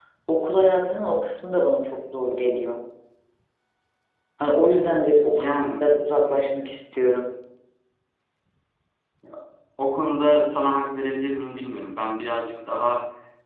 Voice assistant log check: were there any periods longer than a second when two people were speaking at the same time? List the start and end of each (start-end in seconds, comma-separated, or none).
none